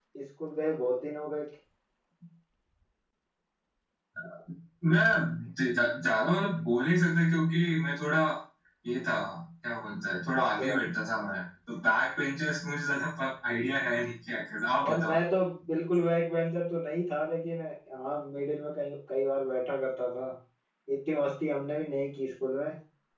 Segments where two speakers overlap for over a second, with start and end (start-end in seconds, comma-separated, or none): none